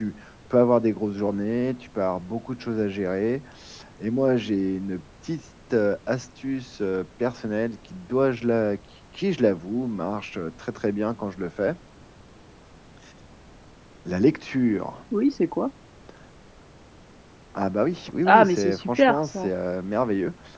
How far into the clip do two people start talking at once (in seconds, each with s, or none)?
18.2 s